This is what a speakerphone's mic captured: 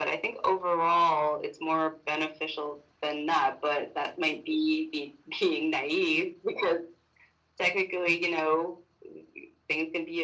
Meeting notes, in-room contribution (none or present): none